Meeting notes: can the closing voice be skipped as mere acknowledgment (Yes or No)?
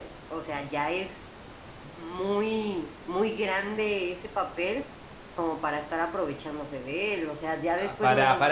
No